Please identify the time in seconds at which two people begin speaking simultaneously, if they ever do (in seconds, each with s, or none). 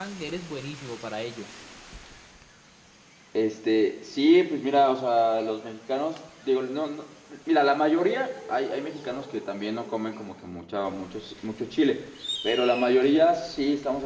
none